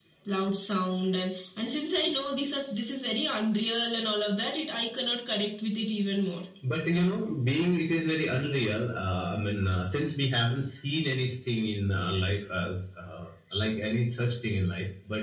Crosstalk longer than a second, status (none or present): none